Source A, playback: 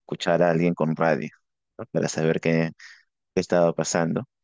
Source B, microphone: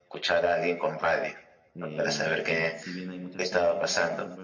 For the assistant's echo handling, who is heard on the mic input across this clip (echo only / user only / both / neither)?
both